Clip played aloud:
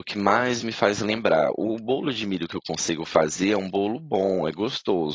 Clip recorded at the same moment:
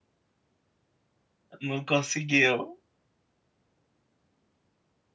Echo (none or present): none